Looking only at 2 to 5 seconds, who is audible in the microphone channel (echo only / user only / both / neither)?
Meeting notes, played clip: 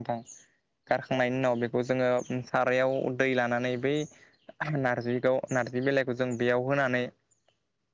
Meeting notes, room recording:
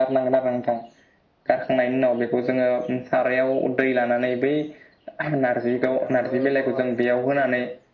echo only